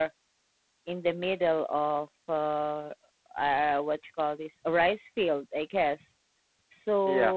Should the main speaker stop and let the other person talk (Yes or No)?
No